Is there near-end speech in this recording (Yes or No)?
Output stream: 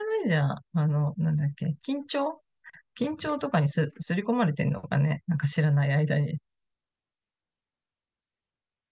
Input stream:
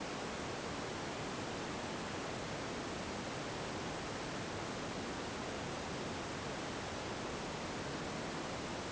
No